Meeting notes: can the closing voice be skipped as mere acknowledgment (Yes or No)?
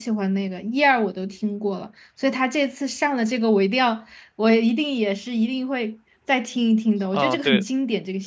No